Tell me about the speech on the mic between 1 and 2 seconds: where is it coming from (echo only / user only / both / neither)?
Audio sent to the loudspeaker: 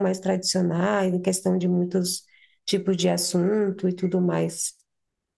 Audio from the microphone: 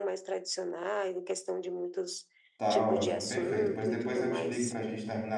echo only